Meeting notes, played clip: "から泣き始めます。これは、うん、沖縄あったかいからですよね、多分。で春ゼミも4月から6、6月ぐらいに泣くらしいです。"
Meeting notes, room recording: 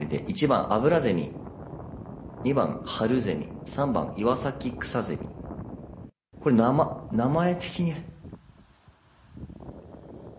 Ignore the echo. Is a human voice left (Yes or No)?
Yes